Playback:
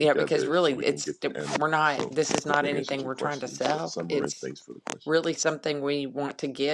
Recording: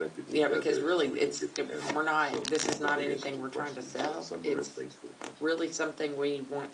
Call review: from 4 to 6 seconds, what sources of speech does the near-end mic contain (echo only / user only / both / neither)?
echo only